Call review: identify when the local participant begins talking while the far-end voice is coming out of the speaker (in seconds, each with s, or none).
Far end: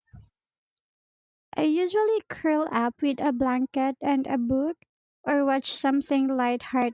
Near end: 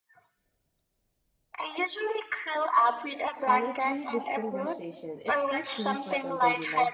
3.5 s